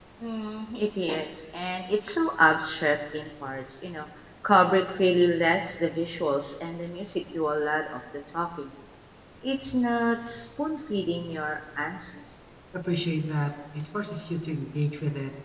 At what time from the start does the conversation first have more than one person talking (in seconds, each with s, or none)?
none